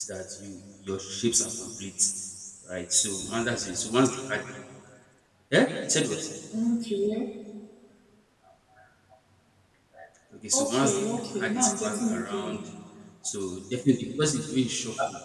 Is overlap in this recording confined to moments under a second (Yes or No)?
No